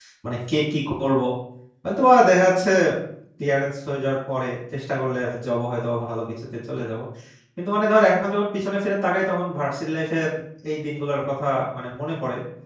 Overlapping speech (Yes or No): No